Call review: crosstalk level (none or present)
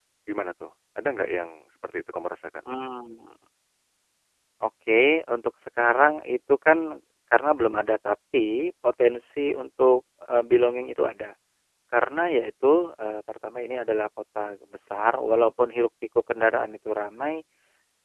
none